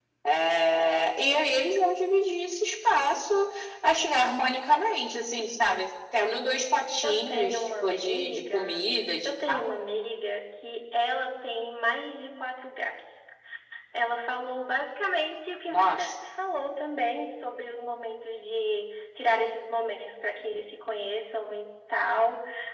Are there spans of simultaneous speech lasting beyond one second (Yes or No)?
Yes